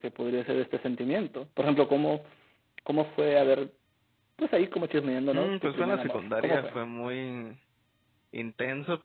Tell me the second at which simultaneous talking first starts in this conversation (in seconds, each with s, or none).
5.3 s